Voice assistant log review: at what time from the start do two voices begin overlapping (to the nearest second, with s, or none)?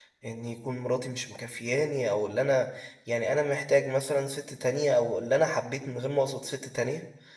none